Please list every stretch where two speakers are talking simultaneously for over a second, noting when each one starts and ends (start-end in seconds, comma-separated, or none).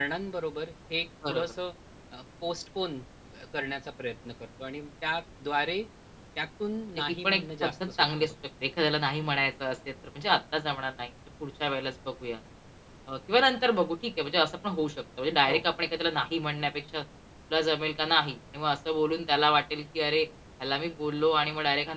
6.9-8.3